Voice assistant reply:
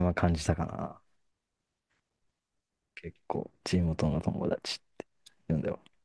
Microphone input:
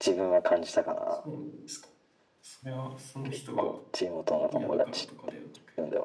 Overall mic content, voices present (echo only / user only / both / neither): both